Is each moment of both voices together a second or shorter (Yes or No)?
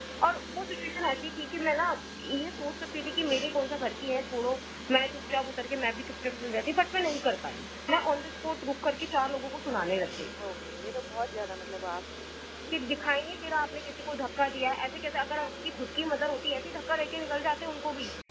Yes